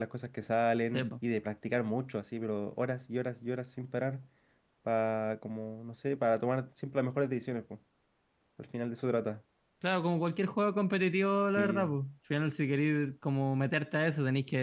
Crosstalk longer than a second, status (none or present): none